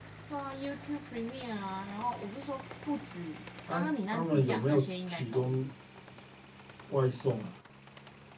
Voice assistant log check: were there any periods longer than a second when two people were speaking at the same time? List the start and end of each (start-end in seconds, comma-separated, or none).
3.7-5.7